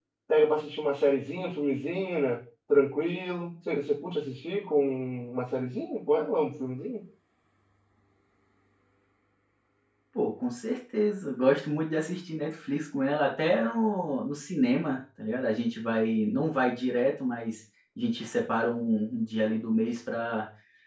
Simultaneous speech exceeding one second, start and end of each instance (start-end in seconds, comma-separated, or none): none